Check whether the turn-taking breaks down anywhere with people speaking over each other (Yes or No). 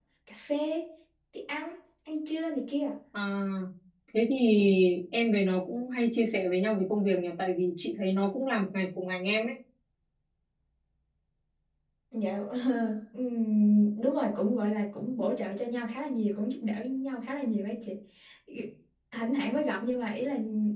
No